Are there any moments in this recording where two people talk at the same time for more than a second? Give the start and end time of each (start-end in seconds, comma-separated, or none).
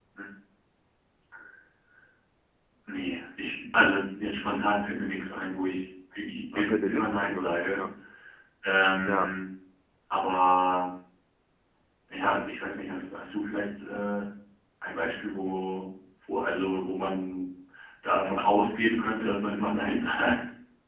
6.5-7.8